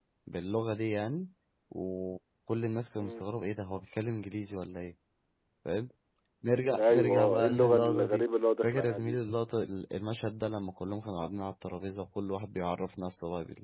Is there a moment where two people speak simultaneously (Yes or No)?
Yes